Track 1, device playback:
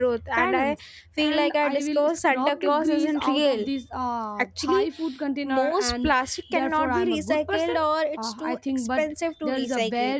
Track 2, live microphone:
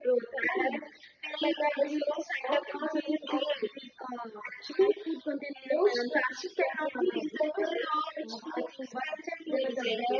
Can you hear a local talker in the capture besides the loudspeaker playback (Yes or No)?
No